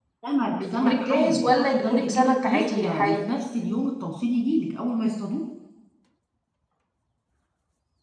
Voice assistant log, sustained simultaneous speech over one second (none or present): present